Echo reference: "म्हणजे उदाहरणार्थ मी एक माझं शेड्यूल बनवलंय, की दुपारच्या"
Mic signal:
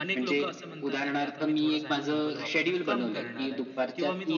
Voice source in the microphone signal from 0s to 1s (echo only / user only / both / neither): both